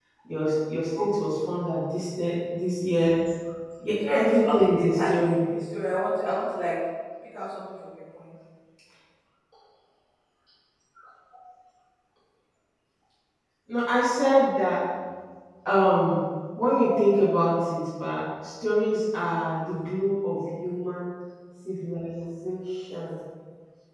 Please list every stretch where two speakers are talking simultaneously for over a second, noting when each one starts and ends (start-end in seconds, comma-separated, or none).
4.1-5.4